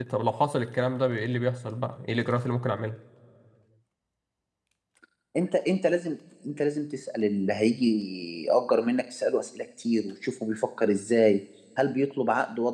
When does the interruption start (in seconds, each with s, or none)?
none